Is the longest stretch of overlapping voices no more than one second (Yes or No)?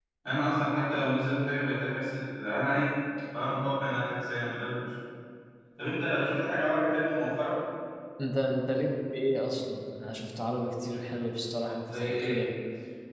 Yes